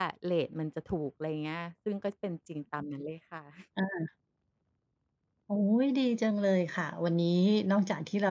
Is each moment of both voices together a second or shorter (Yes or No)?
Yes